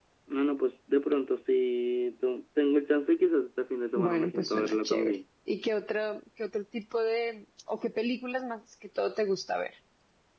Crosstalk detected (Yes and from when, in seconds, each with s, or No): Yes, from 4.0 s